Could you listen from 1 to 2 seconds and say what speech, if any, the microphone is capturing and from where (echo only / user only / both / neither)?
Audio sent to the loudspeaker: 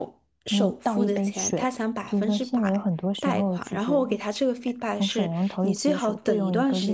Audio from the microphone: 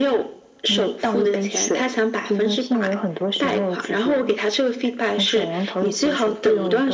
echo only